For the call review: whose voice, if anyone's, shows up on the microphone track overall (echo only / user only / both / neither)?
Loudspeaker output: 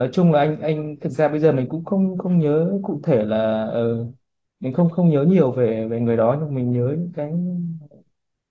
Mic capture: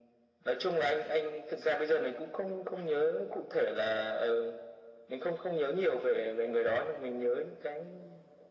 echo only